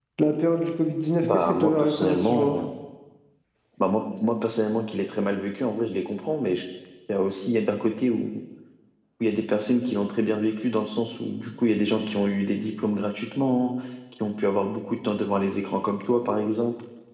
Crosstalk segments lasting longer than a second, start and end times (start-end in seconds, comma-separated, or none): 1.2-2.5